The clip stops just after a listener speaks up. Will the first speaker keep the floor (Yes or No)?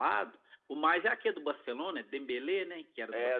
No